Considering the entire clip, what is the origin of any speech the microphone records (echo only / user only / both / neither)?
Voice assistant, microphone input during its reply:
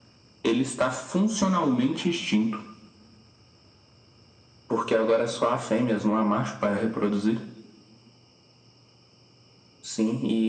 echo only